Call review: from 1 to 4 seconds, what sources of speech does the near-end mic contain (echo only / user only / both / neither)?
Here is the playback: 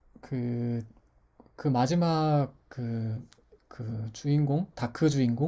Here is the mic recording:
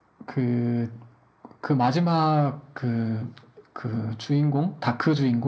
echo only